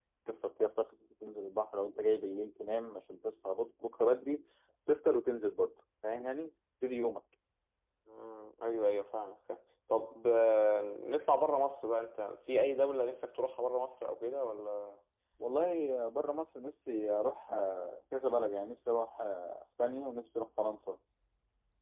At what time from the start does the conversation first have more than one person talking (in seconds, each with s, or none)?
none